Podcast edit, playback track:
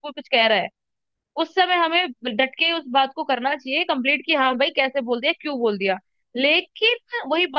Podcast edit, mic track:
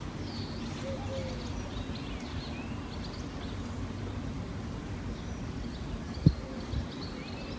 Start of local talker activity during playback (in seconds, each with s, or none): none